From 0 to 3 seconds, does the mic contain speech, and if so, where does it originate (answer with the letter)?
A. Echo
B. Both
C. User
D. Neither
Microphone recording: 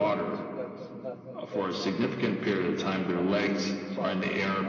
B